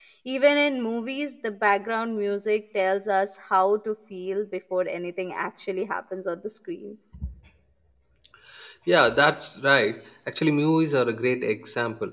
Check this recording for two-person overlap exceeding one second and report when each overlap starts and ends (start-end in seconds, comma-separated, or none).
none